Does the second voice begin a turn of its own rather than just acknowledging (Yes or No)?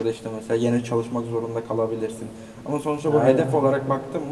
No